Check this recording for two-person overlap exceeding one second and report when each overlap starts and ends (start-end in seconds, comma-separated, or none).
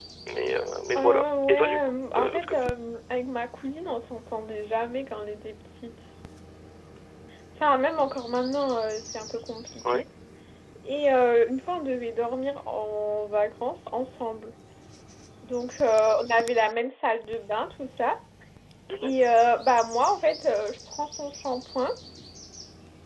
1.0-2.7